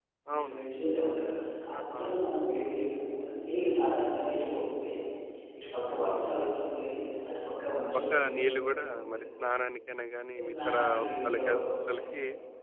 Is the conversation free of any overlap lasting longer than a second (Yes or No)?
No